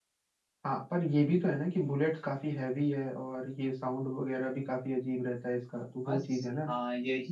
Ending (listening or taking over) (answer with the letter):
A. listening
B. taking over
B